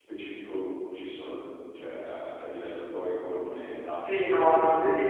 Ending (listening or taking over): taking over